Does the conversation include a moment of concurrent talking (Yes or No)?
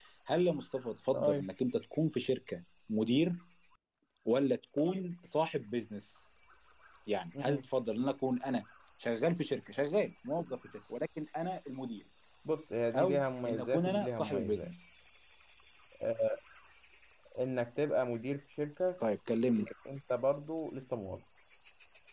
Yes